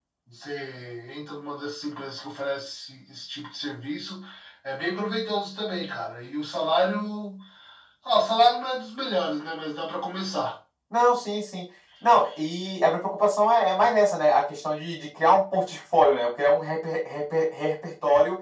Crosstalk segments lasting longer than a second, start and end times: none

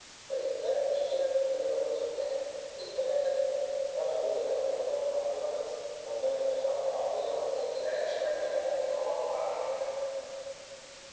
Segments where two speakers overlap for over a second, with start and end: 7.7-9.0

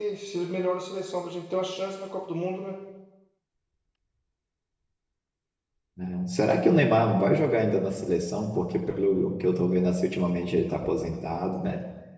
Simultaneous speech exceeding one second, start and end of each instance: none

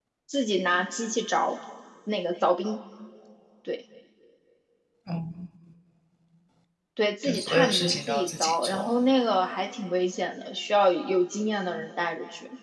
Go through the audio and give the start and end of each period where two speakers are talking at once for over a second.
7.2-8.9

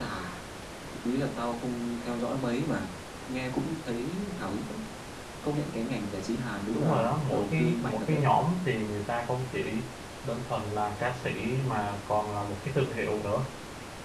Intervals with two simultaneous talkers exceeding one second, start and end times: 6.7-8.2

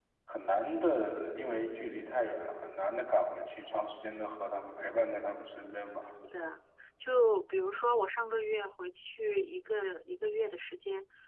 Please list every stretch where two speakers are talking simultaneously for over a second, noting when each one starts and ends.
none

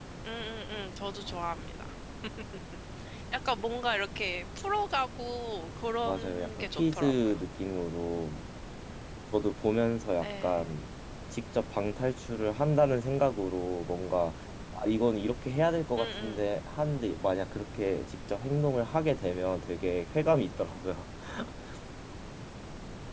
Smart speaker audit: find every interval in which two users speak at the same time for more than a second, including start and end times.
6.0-7.3

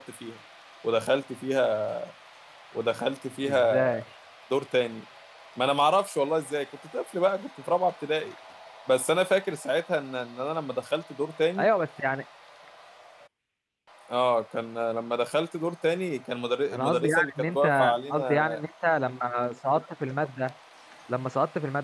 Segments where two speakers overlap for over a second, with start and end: 16.7-18.4

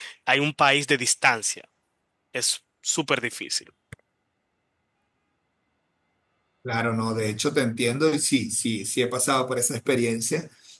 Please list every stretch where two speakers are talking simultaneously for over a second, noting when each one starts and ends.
none

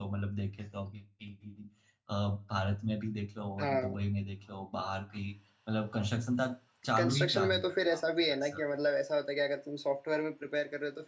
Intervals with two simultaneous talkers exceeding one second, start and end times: 7.0-8.6

